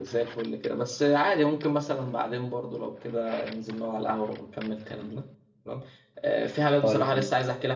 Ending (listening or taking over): listening